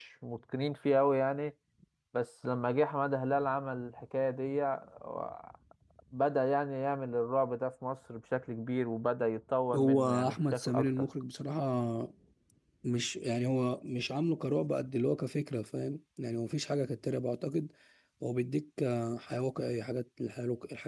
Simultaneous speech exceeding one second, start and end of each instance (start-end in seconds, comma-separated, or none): 9.8-11.1